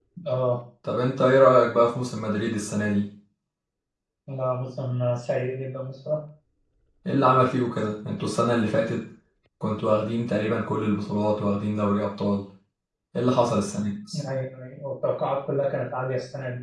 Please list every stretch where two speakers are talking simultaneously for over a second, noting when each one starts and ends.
none

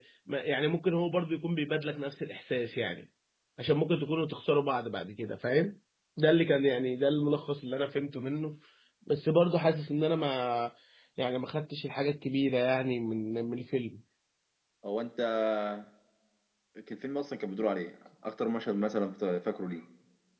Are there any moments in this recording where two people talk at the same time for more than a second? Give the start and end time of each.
none

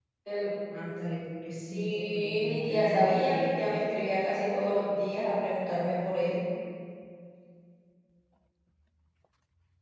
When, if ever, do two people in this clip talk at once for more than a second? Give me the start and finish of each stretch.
1.5-3.7

